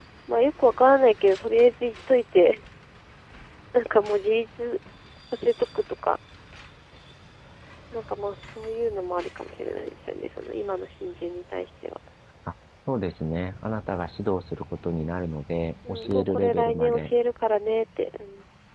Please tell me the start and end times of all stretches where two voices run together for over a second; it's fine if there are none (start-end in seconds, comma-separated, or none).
15.9-17.1